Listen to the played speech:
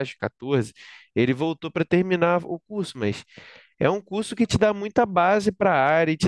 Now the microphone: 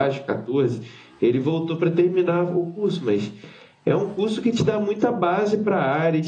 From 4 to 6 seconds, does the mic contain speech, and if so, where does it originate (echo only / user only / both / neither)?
echo only